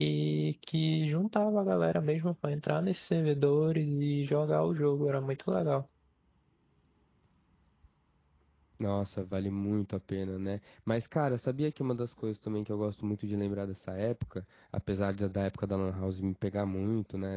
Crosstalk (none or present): none